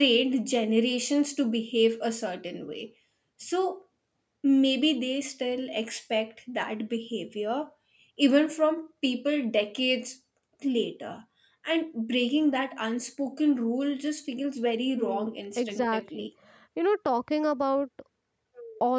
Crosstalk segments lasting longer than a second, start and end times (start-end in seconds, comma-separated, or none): 15.0-16.3